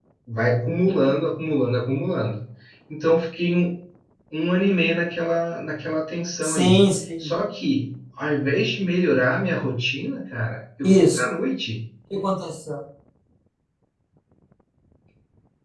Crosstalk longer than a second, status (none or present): none